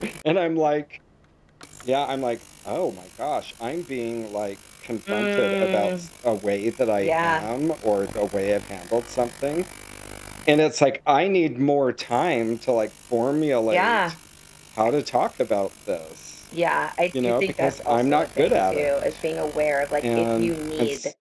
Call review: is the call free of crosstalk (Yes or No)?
No